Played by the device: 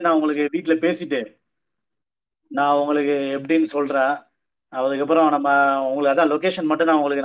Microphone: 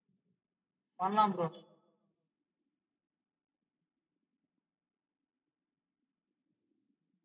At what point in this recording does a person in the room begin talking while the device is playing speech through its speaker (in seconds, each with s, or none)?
1.0 s